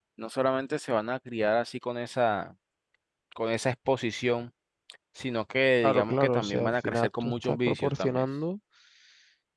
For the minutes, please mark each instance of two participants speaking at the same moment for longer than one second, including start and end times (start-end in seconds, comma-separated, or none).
5.8-8.2